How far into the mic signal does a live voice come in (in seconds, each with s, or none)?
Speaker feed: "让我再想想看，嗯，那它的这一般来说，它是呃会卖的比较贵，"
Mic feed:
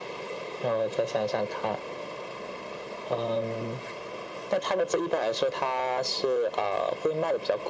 none